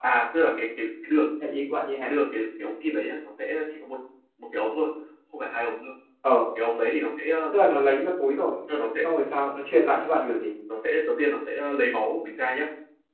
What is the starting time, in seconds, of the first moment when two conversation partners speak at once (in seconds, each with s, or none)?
none